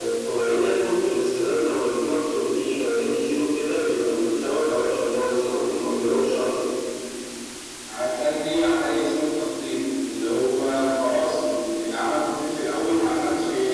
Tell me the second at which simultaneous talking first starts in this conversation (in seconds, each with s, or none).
none